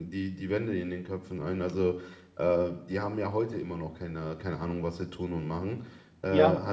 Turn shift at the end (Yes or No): Yes